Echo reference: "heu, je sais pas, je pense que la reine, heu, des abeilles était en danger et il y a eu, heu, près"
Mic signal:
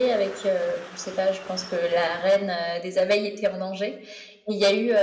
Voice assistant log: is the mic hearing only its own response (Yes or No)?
Yes